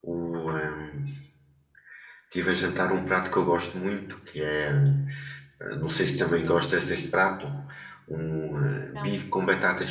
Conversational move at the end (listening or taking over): listening